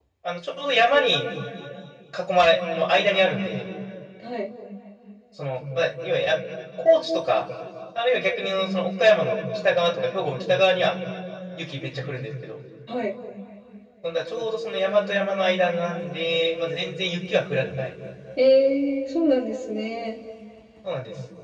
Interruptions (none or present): none